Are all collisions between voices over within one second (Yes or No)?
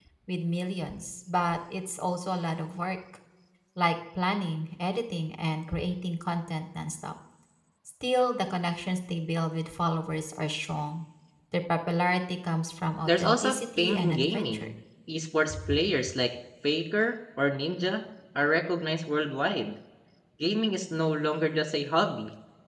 No